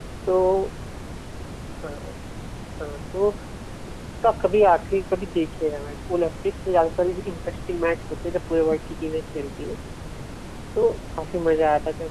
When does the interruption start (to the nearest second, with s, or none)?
none